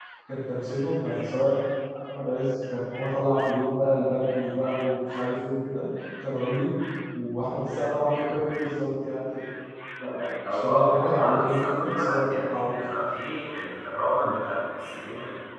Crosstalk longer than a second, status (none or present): present